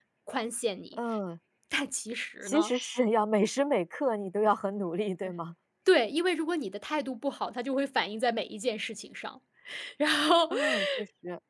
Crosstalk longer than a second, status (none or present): none